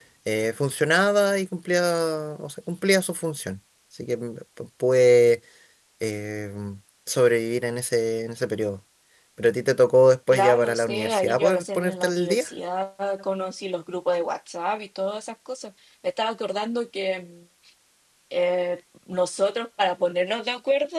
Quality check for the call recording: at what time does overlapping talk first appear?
10.3 s

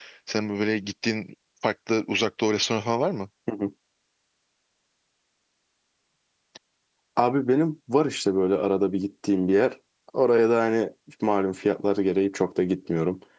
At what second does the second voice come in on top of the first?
none

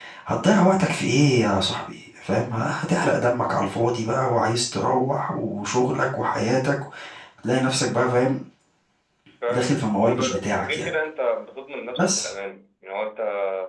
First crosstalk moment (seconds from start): 9.5 s

